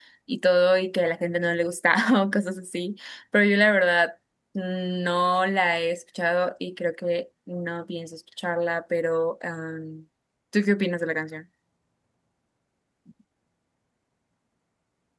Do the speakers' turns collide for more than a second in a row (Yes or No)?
No